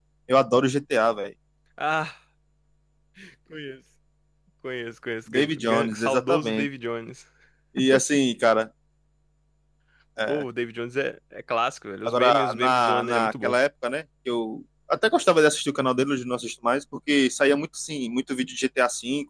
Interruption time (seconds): 5 s

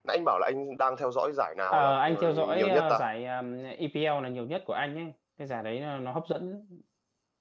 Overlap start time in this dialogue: 2 s

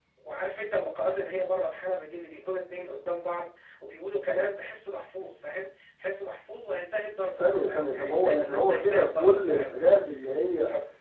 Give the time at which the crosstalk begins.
7 s

